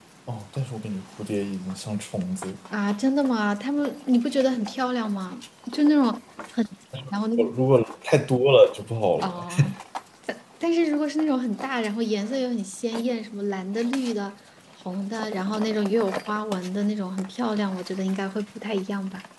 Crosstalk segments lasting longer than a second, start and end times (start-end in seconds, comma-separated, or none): none